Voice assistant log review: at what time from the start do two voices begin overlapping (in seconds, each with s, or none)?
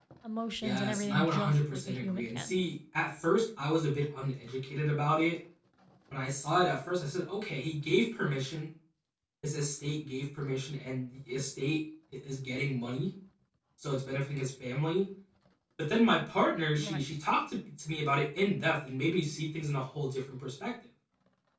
0.6 s